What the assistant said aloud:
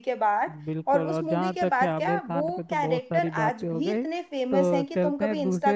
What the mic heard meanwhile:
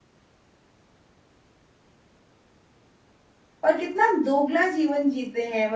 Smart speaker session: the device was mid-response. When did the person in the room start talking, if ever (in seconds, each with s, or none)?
3.6 s